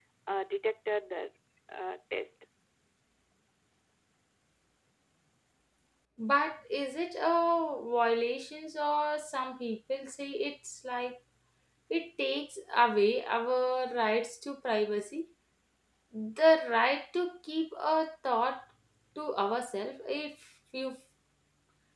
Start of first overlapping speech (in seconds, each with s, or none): none